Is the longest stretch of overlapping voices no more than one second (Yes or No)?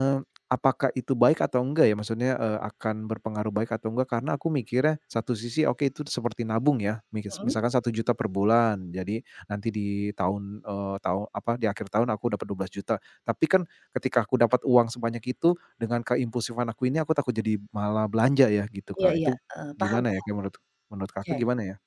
Yes